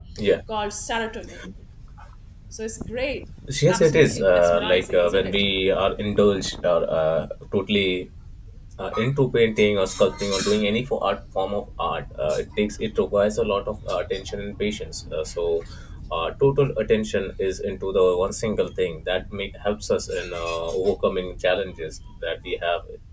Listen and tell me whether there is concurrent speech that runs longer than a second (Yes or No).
Yes